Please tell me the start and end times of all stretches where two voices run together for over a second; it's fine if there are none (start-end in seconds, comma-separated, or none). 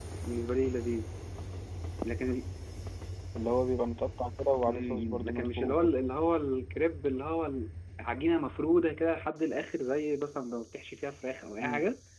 4.7-6.0